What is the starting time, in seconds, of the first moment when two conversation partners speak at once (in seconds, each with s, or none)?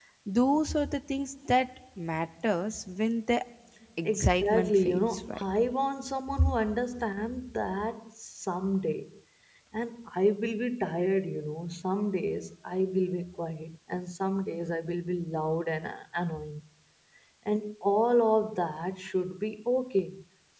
4.0 s